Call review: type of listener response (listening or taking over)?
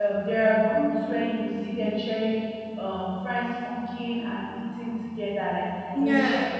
listening